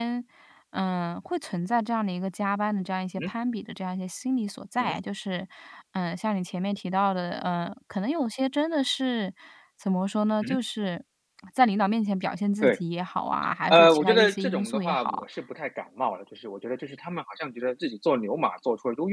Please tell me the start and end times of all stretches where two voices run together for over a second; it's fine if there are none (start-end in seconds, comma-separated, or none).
13.7-15.2